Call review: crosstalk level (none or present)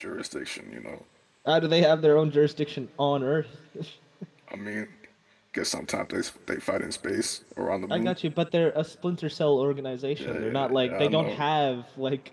present